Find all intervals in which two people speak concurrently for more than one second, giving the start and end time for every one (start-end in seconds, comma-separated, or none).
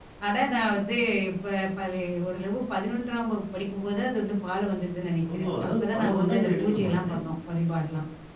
5.3-7.1